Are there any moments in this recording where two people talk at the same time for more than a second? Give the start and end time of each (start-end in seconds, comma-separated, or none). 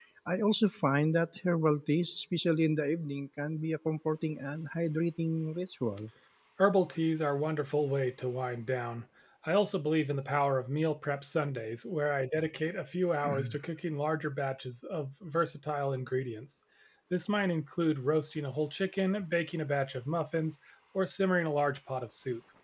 none